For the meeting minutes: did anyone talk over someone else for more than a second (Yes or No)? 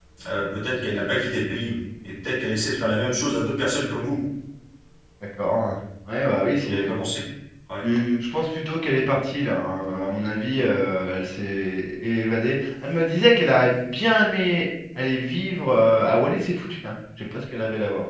No